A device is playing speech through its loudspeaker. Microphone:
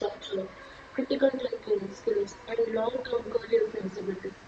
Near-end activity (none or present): none